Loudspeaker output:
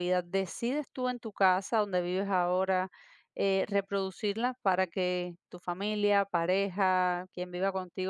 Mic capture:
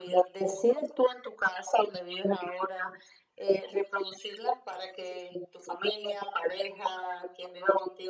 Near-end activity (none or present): none